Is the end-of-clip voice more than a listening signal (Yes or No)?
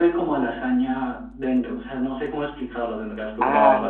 Yes